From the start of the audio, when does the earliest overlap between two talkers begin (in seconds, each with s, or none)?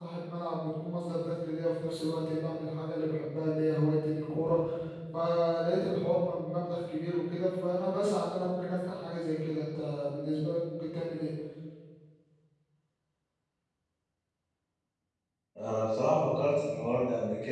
none